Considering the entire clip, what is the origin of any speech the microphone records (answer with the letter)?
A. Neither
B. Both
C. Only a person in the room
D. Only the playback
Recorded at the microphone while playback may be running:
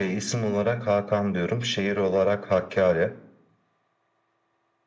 D